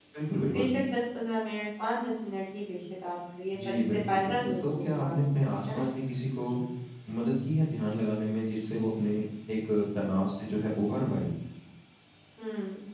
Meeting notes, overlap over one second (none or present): present